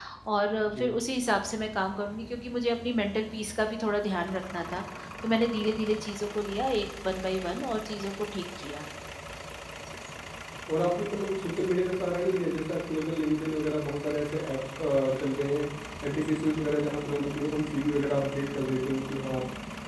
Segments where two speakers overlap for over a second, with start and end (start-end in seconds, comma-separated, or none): none